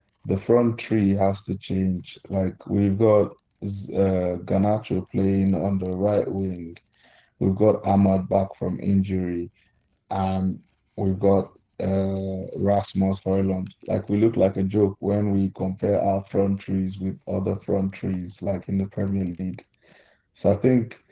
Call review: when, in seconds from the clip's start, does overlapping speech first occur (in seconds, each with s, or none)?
none